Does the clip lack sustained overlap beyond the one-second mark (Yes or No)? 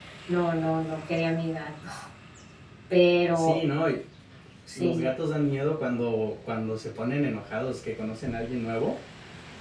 Yes